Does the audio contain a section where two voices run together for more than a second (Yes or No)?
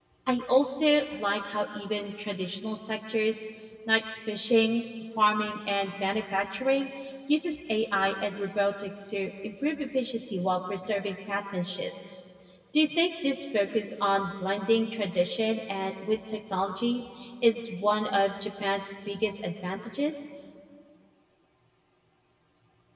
No